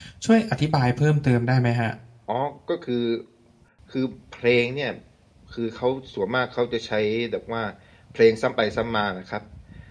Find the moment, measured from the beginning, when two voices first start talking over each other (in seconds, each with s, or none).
none